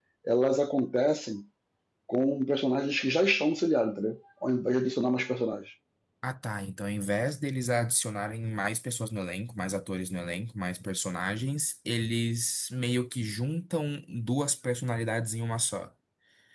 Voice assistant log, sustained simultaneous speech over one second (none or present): none